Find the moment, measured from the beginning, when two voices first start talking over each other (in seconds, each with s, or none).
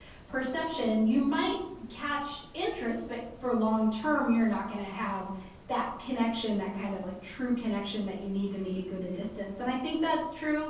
none